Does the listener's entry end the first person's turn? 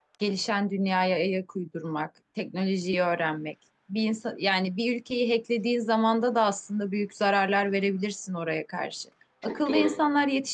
No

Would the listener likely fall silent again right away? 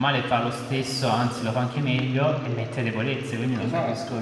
No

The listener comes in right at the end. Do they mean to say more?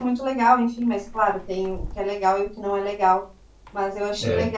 No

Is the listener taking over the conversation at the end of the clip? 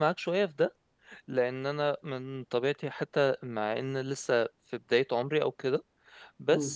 No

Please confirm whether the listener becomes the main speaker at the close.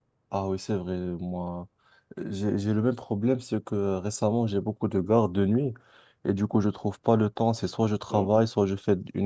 No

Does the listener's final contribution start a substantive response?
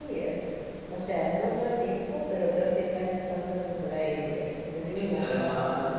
Yes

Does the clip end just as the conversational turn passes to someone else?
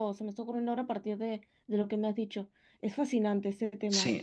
Yes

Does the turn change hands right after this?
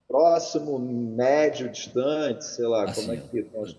Yes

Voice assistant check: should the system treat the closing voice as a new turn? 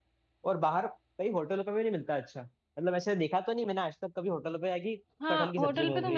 Yes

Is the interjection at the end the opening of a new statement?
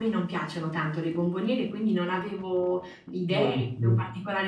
No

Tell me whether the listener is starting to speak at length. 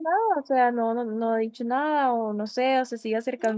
No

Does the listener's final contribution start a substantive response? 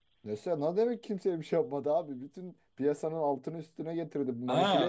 Yes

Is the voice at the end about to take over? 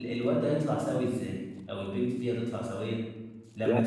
No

